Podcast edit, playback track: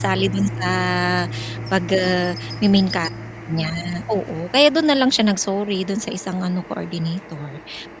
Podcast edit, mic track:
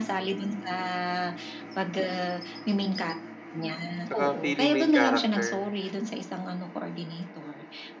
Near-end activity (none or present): present